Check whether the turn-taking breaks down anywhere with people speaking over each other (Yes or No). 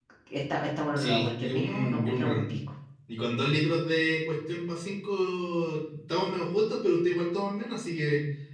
Yes